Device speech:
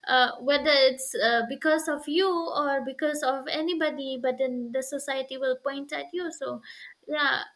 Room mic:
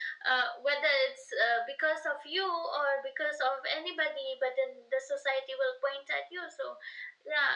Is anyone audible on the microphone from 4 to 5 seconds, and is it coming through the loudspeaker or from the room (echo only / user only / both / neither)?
echo only